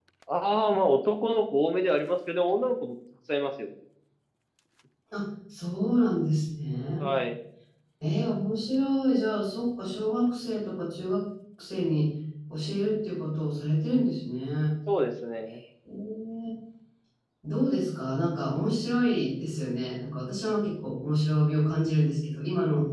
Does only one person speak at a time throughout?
Yes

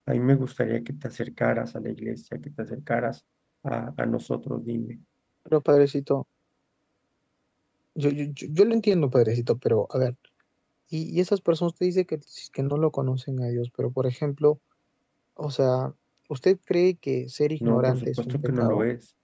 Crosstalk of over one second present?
Yes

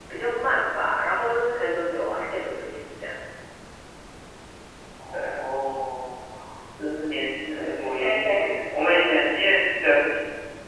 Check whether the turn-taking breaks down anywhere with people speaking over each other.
Yes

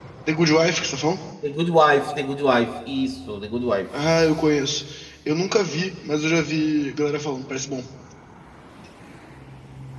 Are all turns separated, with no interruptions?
Yes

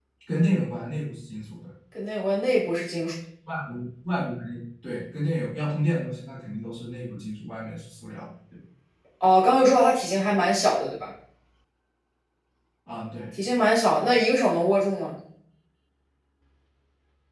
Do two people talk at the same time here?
No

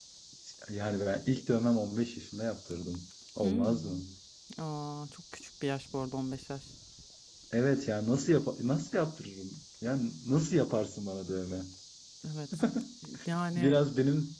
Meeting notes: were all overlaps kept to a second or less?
Yes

